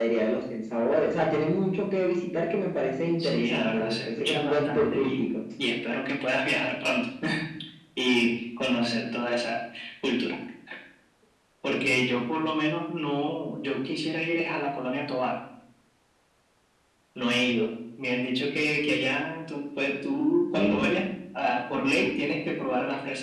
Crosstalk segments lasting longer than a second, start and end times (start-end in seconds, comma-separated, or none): 3.2-5.3